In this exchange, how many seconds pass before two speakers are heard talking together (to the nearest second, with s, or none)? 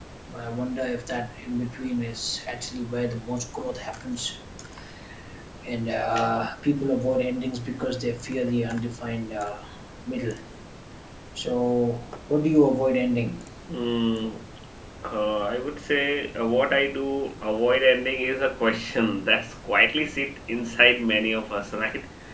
none